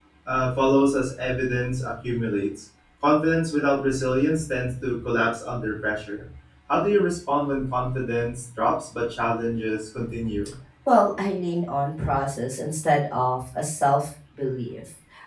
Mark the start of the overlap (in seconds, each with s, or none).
none